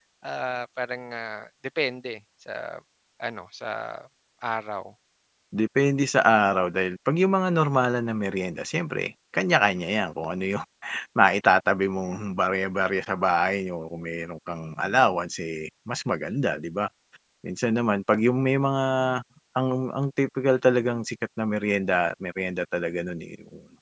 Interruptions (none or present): none